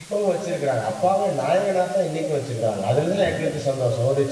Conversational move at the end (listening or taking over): listening